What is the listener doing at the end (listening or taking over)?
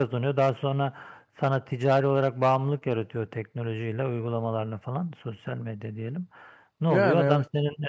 listening